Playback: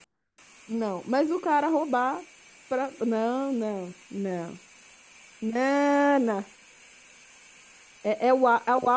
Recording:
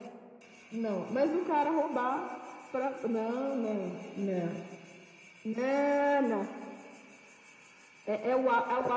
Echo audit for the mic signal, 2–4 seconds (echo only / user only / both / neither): echo only